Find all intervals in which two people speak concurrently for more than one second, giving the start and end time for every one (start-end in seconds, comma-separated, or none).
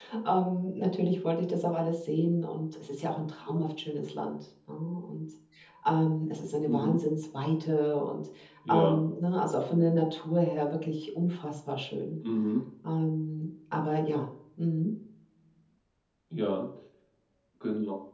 none